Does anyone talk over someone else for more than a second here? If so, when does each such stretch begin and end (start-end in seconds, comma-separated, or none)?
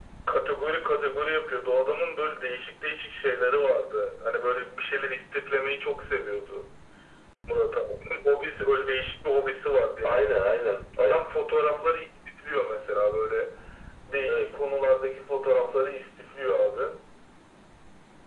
none